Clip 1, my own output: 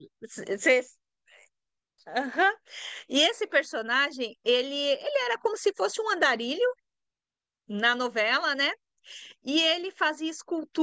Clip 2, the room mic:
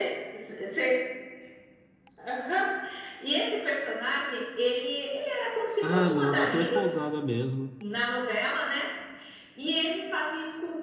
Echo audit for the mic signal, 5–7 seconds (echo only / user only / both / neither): both